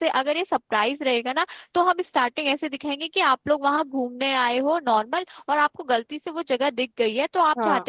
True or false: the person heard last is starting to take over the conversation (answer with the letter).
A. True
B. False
B